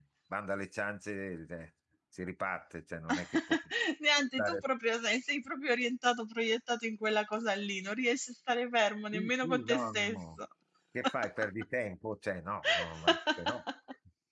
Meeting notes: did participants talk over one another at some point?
Yes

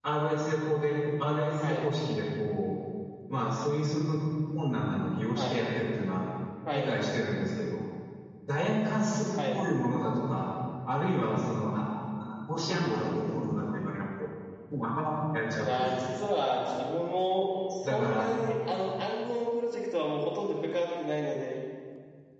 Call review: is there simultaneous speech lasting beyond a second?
No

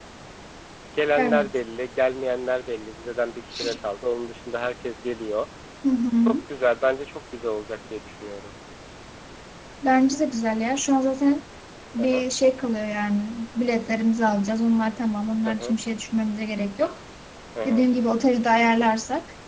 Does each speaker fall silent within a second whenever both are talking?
Yes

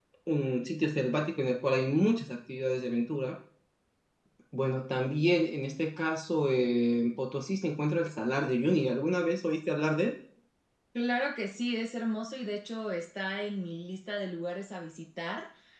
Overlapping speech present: No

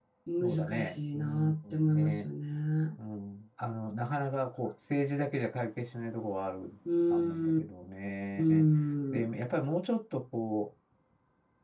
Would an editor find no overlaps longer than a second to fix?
No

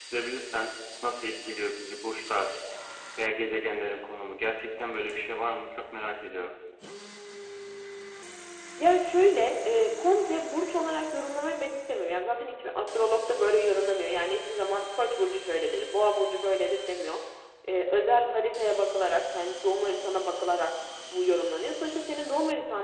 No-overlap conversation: Yes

